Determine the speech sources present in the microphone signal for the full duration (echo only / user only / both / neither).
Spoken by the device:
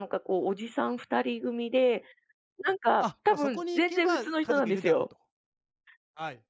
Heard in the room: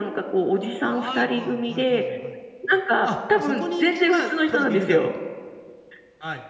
both